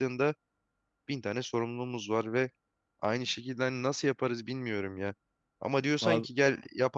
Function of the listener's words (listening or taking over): listening